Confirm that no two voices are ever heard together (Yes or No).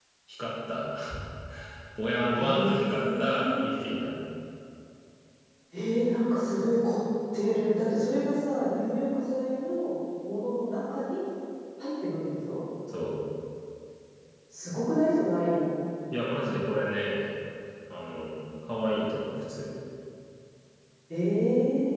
No